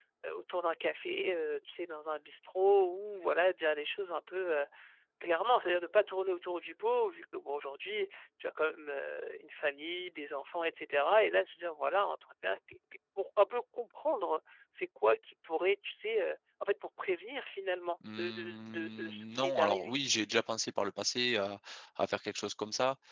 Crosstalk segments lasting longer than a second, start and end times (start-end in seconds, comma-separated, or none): 18.1-19.9